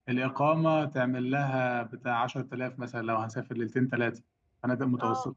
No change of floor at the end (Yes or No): No